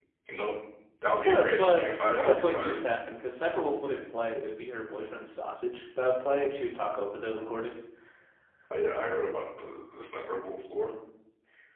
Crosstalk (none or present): present